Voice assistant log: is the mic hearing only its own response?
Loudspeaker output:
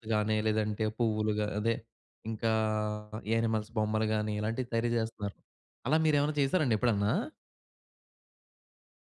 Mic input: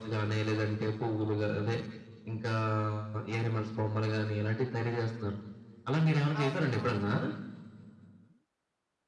No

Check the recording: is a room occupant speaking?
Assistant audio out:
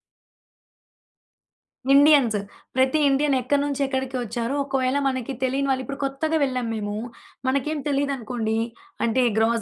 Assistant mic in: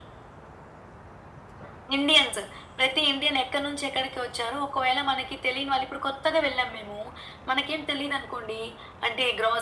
No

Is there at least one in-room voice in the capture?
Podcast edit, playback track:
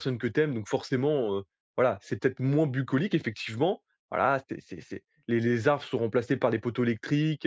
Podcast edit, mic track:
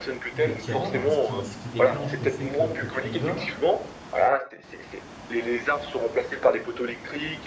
Yes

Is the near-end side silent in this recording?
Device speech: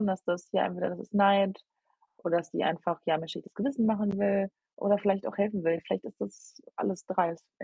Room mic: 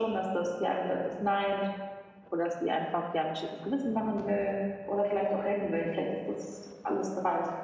Yes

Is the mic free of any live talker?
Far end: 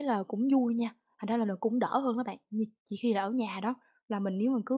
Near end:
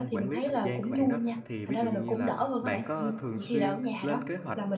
No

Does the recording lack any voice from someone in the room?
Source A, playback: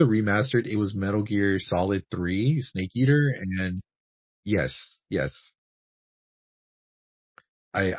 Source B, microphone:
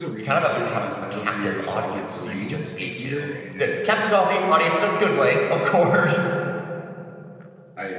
No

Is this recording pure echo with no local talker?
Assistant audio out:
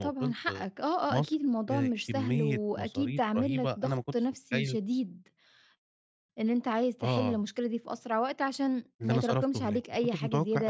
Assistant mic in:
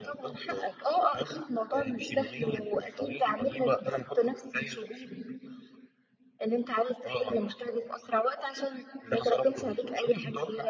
Yes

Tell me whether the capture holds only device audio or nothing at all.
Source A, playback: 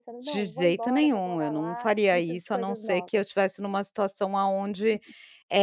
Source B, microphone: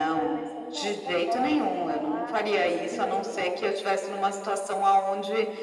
No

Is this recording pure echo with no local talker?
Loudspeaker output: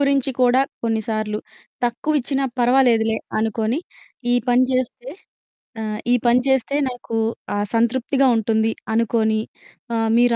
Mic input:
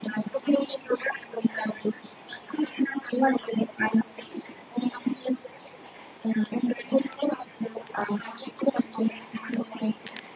Yes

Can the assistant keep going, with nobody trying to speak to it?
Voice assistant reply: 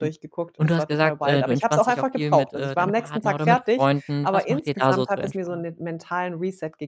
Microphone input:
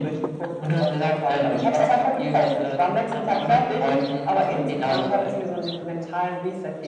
Yes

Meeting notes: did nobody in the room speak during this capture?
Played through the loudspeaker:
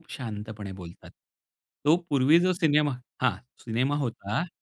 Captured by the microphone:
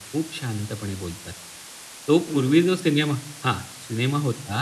No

